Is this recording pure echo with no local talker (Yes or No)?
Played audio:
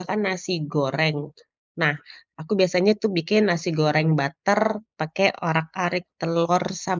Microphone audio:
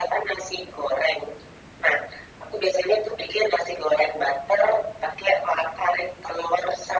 Yes